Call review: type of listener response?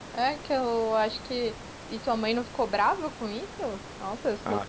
taking over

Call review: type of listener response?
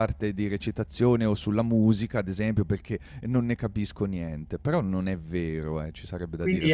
taking over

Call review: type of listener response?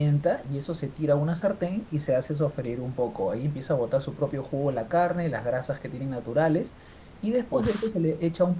listening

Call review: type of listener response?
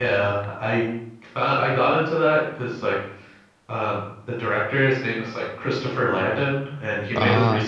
listening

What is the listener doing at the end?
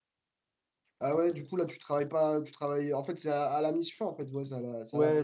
taking over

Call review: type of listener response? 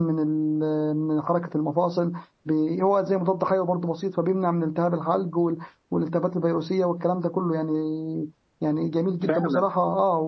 listening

